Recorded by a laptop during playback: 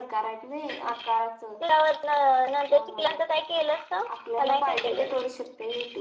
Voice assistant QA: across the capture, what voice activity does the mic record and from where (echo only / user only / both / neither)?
both